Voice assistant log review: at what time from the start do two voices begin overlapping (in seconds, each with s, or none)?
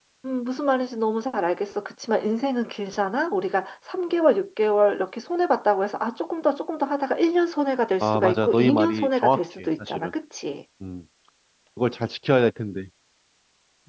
8.0 s